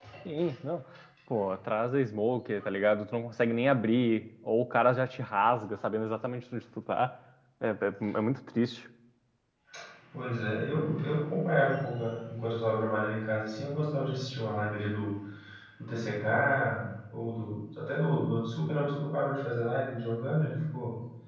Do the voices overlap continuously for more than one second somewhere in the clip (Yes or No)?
No